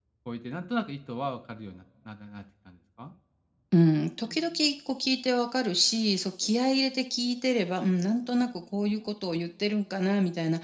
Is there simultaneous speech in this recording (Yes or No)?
No